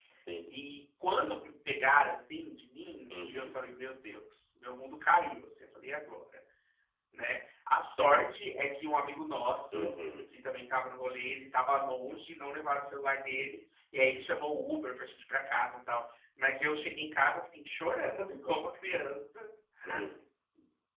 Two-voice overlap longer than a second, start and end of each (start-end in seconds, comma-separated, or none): none